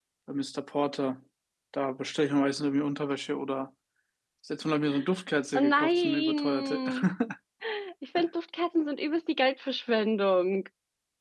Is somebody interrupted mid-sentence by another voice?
Yes, from 5.5 s

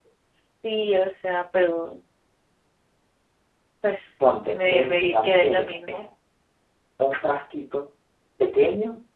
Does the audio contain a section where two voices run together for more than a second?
Yes, from 4.5 s

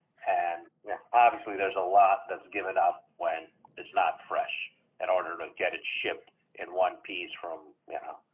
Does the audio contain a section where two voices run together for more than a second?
No

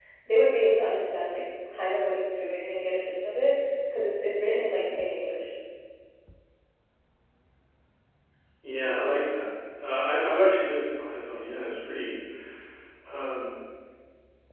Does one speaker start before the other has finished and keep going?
No

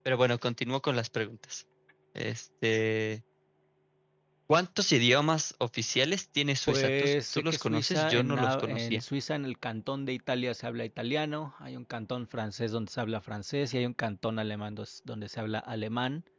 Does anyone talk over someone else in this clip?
Yes, from 6.6 s

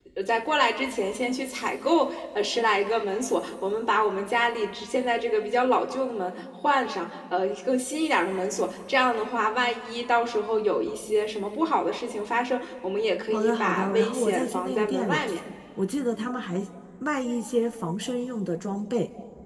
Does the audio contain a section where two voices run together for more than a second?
Yes, from 13.3 s

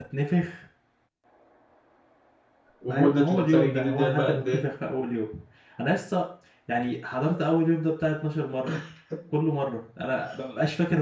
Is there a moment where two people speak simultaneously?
Yes, from 2.9 s

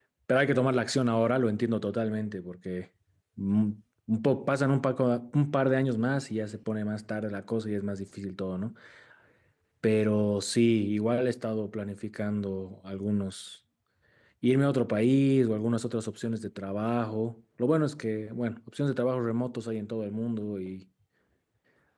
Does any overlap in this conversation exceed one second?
No

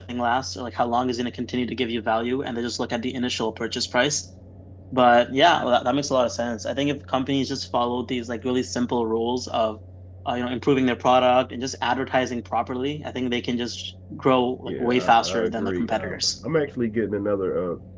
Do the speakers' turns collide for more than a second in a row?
Yes, from 14.7 s

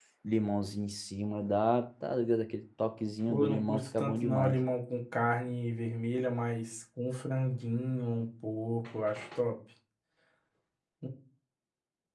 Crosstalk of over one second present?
Yes, from 3.3 s

